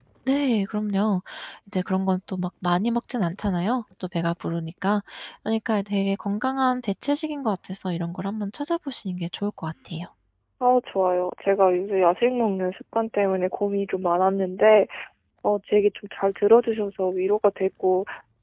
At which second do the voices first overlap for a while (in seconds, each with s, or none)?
none